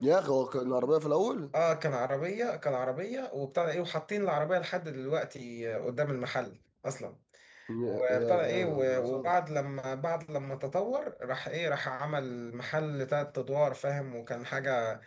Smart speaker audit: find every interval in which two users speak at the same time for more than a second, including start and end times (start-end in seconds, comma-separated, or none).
7.9-9.3